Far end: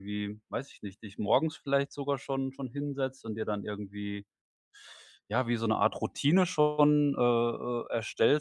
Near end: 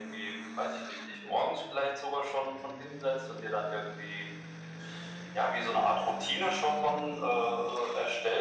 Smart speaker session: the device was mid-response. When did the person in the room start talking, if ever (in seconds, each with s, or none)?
none